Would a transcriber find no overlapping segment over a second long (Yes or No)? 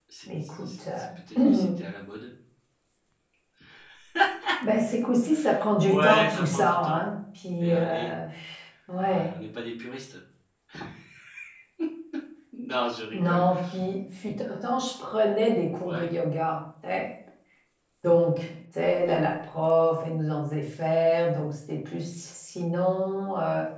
No